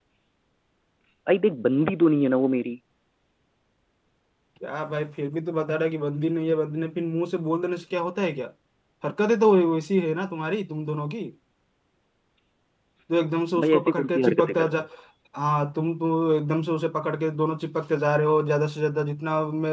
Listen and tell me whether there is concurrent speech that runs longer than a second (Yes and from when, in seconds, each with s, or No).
Yes, from 13.6 s